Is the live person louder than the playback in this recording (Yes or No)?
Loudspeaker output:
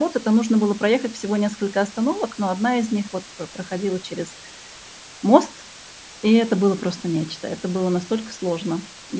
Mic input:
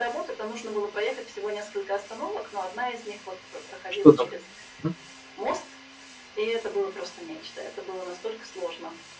Yes